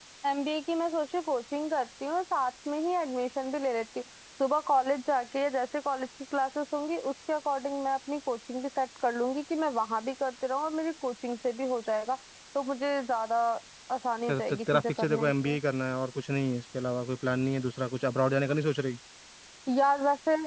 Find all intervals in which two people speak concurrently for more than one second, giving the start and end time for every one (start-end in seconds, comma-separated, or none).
14.3-15.6